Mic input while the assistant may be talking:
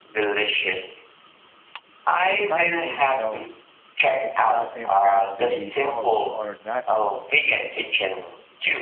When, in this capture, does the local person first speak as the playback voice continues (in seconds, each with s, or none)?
2.2 s